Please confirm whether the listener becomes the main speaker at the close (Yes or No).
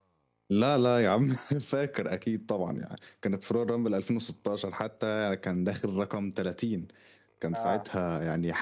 No